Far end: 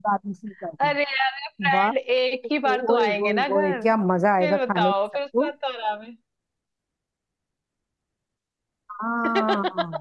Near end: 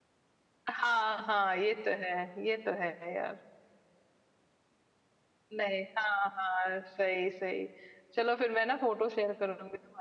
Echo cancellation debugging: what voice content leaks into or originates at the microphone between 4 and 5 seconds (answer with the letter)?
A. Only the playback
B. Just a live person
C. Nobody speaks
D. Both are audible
C